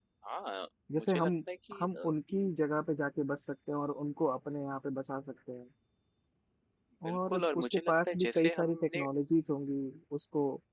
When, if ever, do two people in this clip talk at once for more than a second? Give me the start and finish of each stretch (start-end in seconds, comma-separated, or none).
7.1-9.0